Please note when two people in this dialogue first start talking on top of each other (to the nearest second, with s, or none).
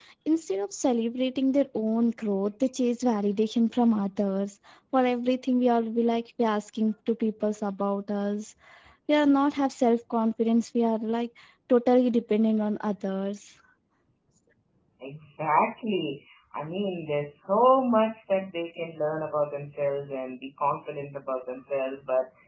none